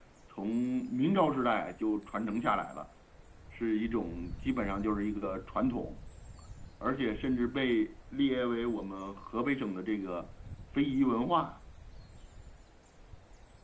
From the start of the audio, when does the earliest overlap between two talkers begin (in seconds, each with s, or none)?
none